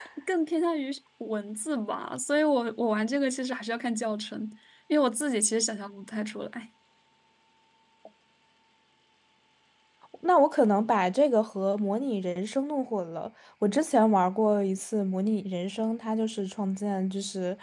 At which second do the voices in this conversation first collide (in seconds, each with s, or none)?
none